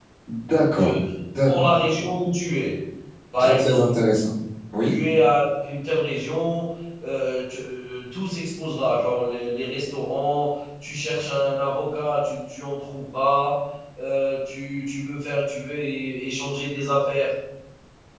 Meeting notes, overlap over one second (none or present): none